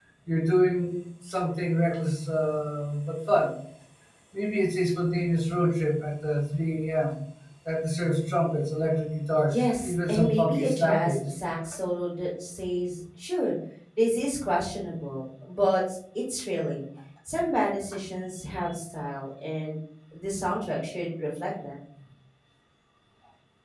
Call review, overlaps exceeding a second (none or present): present